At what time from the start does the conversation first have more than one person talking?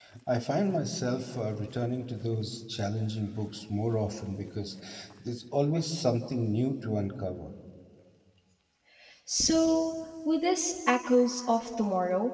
none

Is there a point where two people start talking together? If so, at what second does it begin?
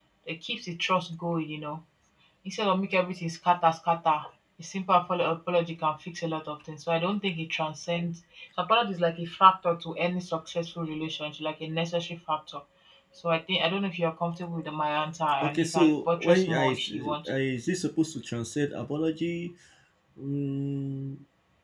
15 s

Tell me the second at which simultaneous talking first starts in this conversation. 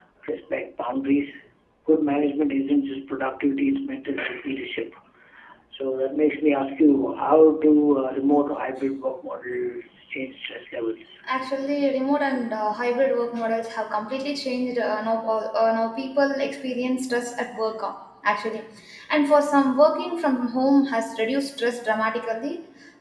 none

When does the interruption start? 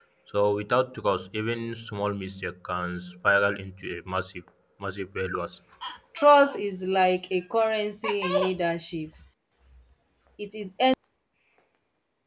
none

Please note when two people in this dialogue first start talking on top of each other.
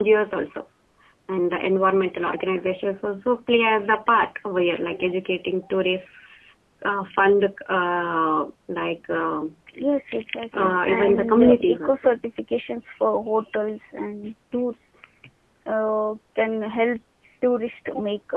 11 s

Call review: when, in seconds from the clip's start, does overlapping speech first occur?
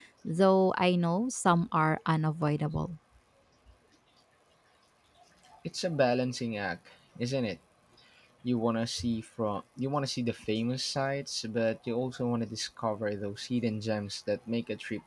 none

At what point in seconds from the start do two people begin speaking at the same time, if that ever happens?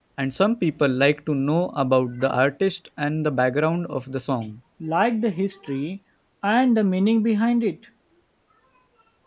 none

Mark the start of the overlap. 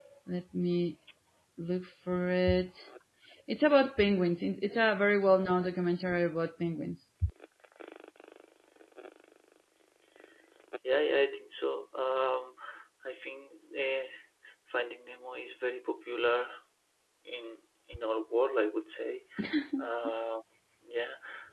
none

